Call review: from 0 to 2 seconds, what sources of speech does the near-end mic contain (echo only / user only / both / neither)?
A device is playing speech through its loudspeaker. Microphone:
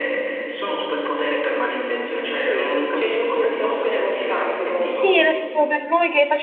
echo only